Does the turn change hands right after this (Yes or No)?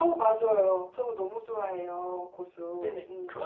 Yes